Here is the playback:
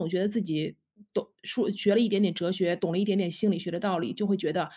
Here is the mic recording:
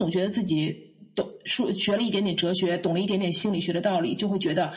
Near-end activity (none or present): none